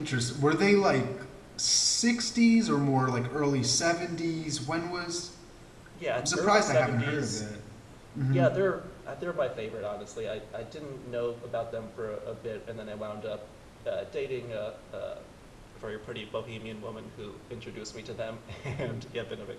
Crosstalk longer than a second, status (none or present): present